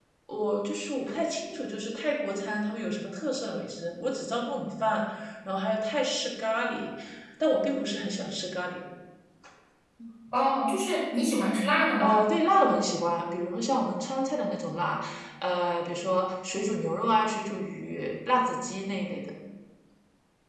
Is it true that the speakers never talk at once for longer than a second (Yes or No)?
Yes